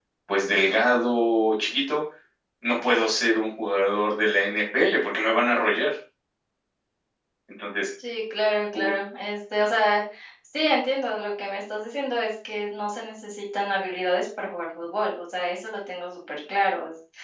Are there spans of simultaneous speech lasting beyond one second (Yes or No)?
No